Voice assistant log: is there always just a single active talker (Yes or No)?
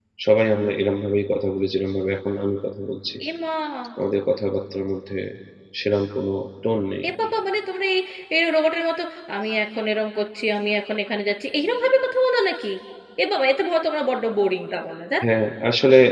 Yes